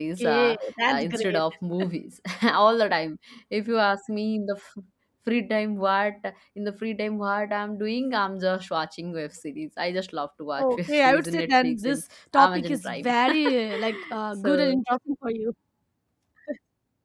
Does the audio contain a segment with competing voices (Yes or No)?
Yes